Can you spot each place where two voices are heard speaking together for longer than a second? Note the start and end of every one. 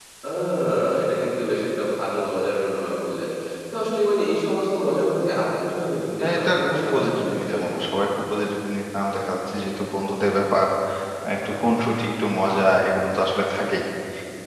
6.2-7.9

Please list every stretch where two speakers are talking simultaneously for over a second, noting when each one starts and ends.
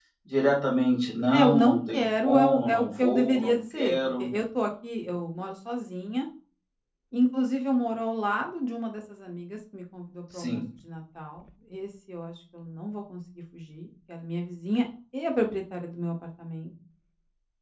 1.3-4.3

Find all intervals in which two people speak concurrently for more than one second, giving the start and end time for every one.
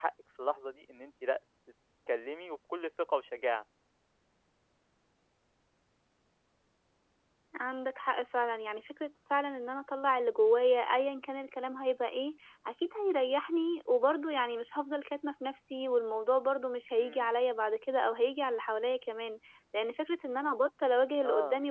none

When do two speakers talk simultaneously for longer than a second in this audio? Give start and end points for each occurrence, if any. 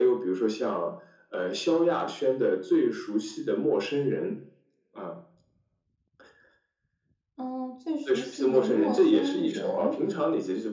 8.1-9.9

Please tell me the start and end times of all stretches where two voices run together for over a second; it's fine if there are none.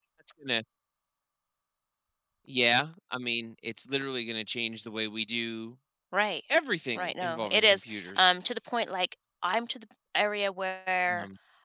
7.0-8.3

